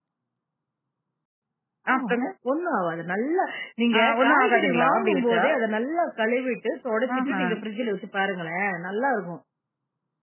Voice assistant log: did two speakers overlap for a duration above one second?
Yes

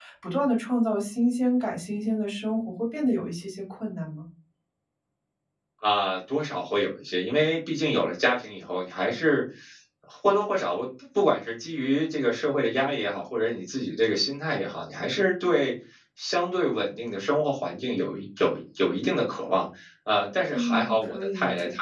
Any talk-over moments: Yes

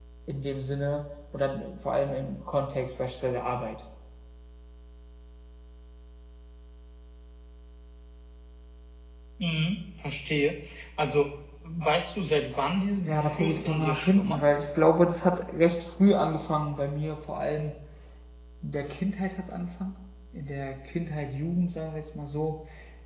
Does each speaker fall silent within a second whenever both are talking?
No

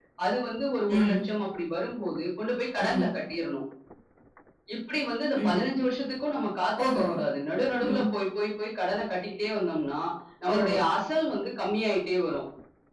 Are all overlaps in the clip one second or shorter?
Yes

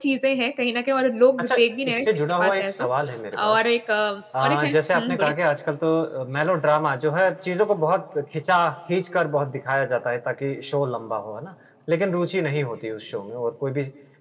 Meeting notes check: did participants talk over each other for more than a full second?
Yes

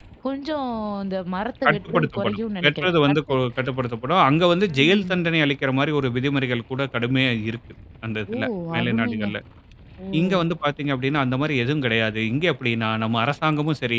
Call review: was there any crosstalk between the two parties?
Yes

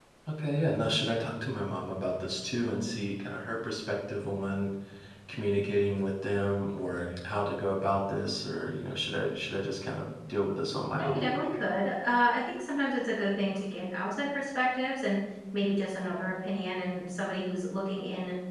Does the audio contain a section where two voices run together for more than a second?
No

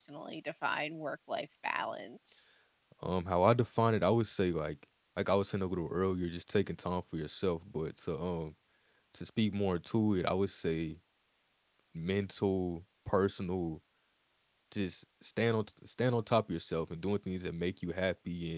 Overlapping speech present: No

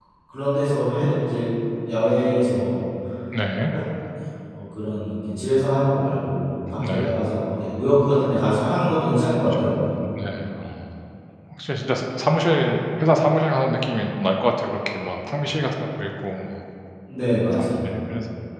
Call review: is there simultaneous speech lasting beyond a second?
No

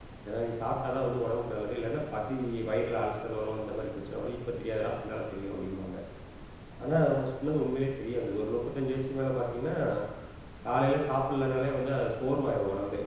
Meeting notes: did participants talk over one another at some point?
No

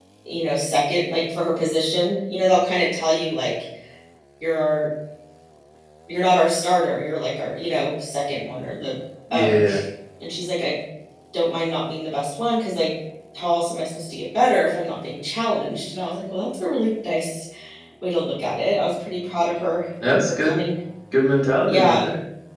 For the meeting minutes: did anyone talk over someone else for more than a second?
No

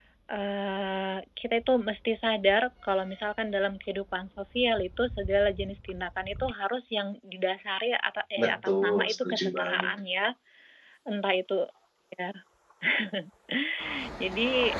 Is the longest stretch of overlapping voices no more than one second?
No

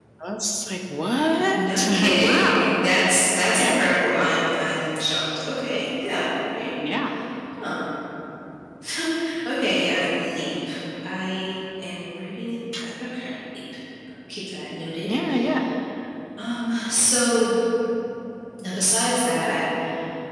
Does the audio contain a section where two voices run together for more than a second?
Yes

